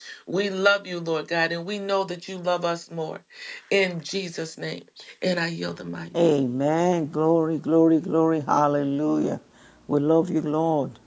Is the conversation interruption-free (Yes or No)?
Yes